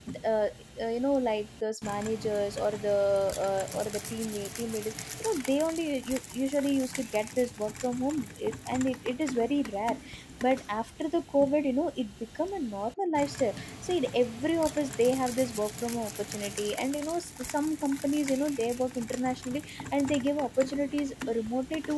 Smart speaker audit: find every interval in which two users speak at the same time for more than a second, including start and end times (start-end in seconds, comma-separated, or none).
none